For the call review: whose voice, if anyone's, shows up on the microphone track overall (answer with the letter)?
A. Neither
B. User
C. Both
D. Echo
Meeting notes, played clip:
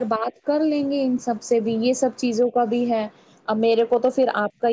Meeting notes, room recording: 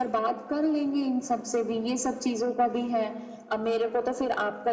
D